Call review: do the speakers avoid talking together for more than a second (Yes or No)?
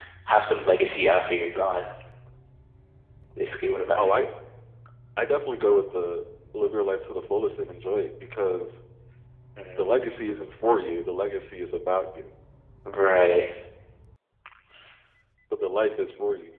Yes